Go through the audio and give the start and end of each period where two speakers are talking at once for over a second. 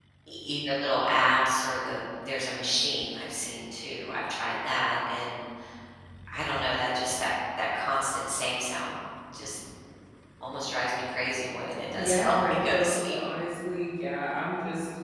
11.9-13.2

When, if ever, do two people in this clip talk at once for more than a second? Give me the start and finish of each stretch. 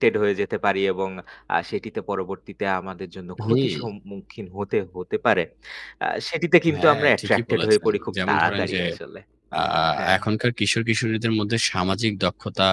6.8-8.8

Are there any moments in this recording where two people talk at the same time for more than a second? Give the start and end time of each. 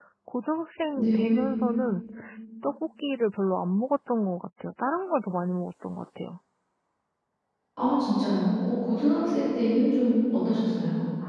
none

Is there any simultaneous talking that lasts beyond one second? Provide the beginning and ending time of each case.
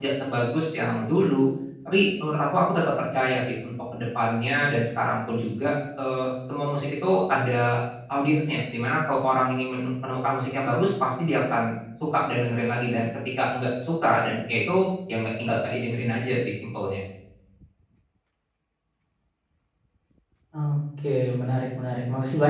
none

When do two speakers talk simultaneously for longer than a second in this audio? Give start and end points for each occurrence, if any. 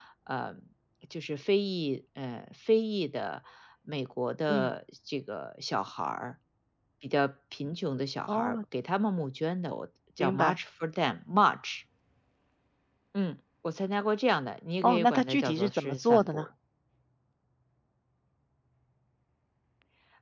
14.8-16.5

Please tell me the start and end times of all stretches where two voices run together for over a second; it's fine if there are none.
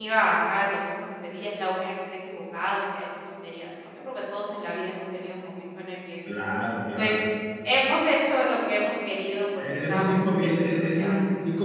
9.6-11.1

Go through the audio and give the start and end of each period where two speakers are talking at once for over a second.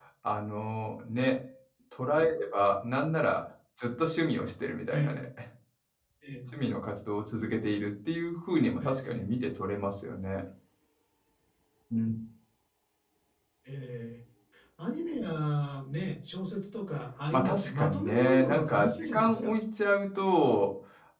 17.3-19.5

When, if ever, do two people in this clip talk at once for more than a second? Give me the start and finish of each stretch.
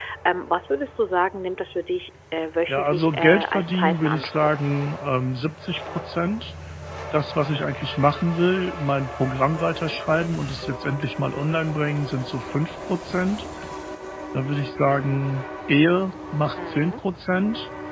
2.7-4.5

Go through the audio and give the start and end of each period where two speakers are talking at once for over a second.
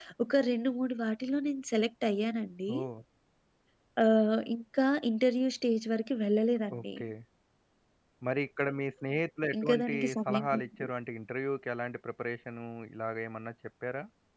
9.6-10.8

